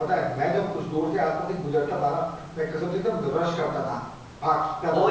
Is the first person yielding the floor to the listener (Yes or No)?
Yes